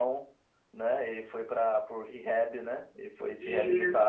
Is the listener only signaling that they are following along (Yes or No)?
No